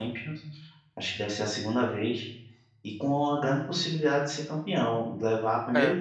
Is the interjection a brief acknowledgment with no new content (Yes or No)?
Yes